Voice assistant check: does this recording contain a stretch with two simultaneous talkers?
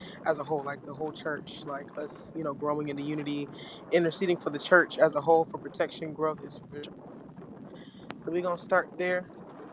No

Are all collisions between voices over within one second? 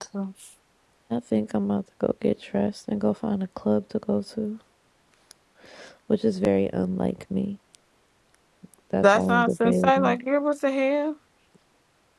No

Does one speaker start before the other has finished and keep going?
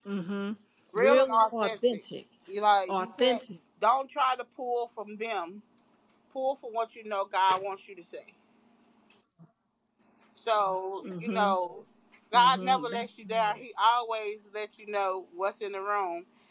Yes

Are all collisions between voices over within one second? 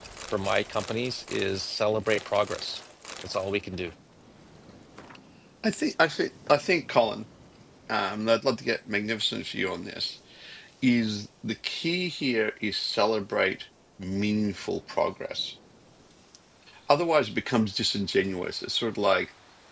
Yes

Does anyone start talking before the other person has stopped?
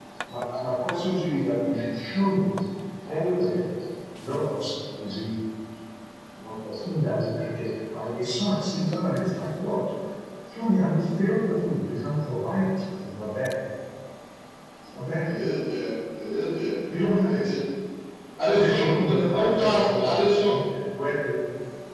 Yes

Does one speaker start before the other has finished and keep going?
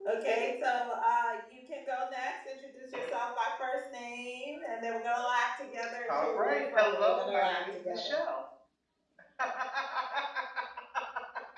Yes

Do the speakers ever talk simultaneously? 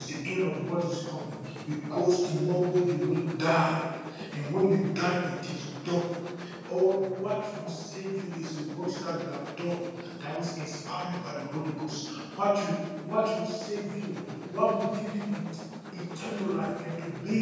No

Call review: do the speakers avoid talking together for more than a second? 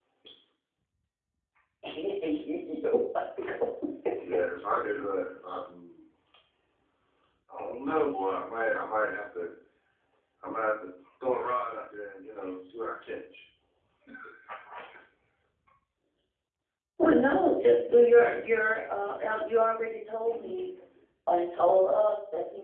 Yes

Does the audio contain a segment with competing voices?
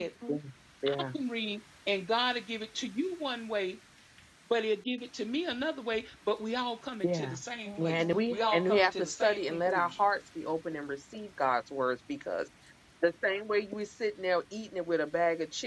Yes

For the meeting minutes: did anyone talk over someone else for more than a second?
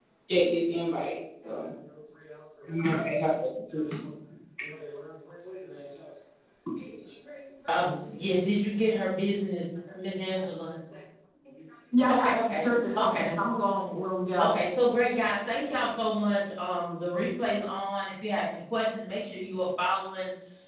Yes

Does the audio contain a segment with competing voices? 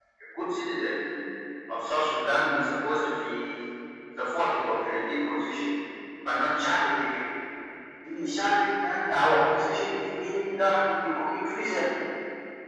No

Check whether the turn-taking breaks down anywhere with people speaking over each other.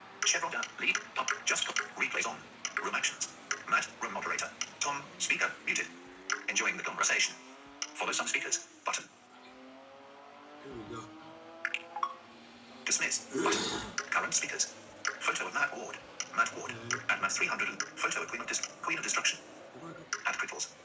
No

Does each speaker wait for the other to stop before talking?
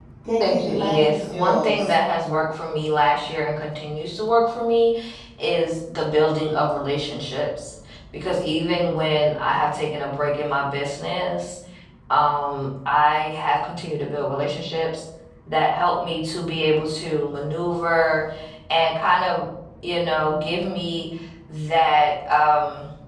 No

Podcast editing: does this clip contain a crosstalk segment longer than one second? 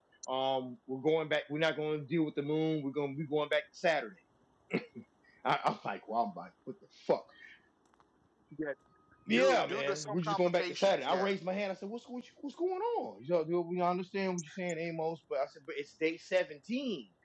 Yes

